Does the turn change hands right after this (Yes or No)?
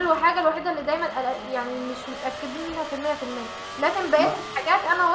No